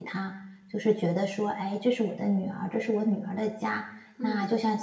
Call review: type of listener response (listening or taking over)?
listening